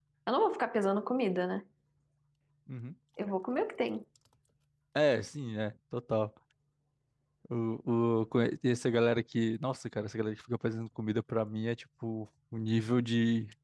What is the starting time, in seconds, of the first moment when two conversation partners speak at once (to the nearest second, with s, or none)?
none